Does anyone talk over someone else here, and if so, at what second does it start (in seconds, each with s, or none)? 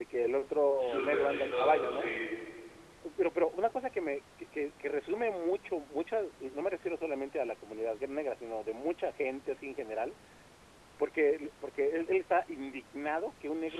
0.9 s